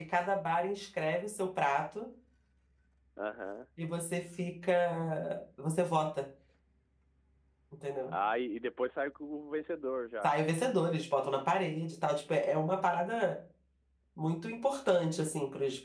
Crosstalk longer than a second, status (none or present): none